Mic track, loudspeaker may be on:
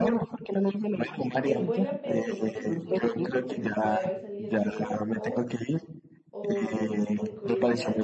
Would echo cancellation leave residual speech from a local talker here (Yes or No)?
Yes